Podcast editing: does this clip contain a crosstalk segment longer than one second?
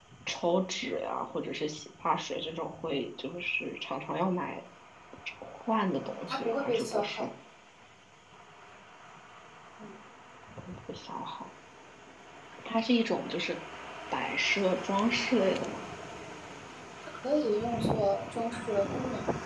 Yes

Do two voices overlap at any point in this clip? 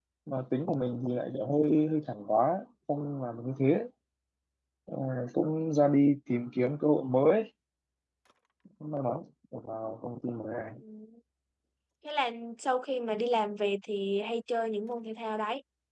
No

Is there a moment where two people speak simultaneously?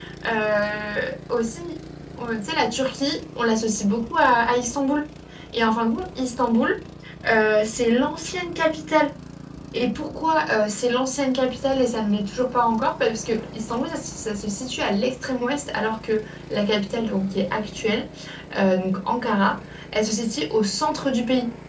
No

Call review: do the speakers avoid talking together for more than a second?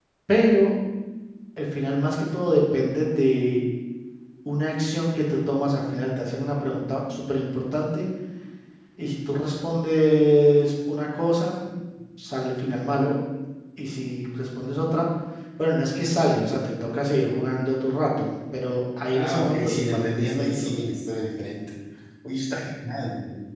No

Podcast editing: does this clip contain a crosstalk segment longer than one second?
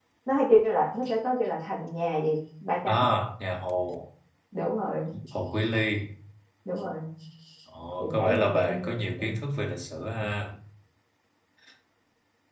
Yes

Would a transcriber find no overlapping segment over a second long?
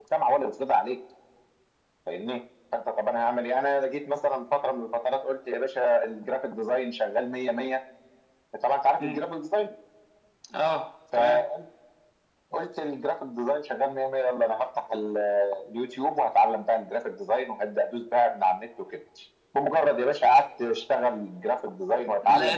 Yes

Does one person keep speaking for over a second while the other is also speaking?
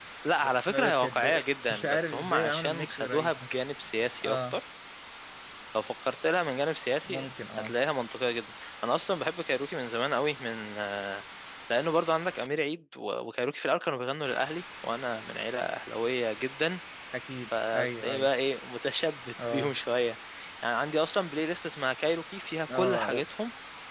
Yes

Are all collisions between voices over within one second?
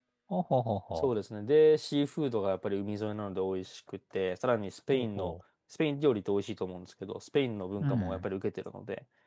Yes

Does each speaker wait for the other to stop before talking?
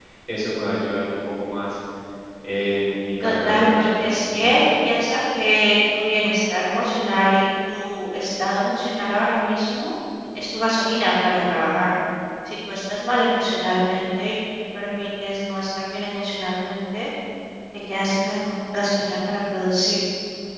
No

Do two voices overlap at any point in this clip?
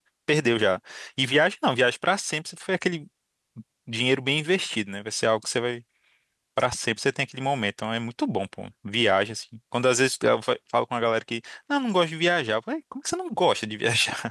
No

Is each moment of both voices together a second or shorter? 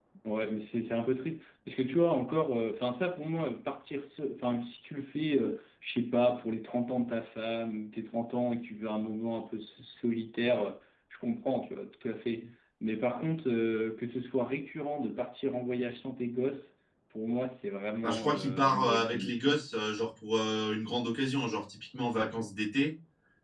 No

